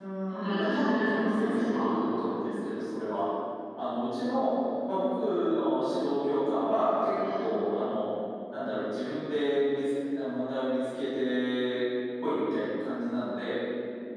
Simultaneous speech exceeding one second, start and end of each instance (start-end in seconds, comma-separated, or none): 0.5-1.9